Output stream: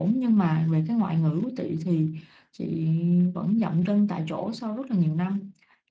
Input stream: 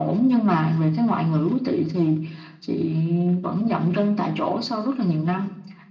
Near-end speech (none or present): none